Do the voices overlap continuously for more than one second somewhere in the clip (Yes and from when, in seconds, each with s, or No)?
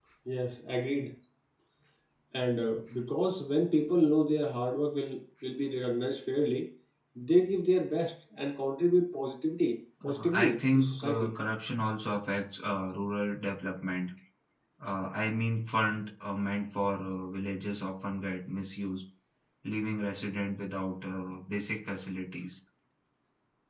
Yes, from 10.0 s